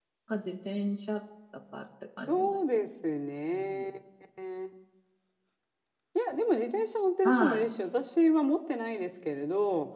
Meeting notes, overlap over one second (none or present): none